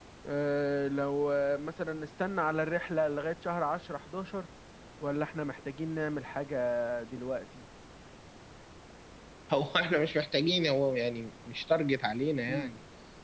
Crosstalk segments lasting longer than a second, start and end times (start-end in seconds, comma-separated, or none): none